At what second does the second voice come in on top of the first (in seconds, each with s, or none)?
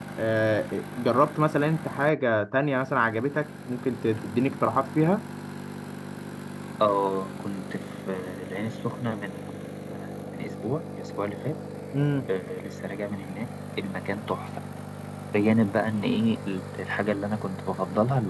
none